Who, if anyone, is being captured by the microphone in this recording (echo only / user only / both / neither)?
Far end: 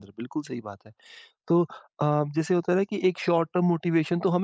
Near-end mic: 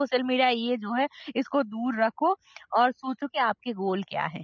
user only